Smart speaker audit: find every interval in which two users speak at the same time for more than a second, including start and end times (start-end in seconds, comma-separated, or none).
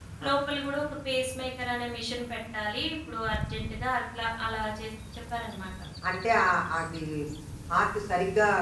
none